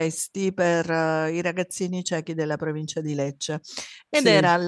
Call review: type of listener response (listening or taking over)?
listening